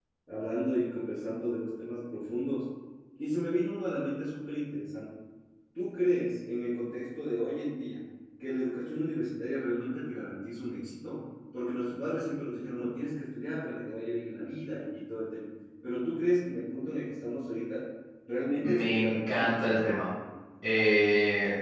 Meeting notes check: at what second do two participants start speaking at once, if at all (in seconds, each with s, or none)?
18.6 s